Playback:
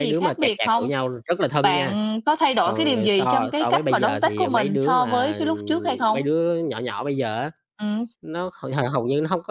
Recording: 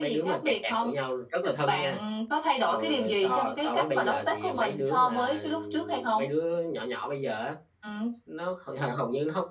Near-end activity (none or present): none